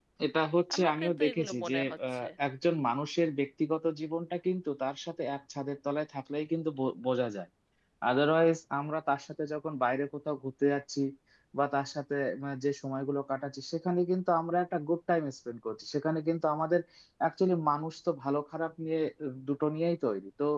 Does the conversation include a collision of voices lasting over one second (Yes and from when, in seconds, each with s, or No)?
Yes, from 0.7 s